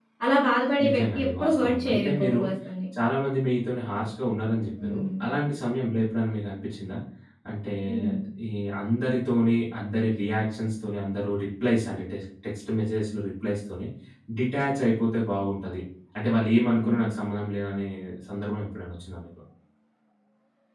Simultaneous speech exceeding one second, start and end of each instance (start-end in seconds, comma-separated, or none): 0.9-2.4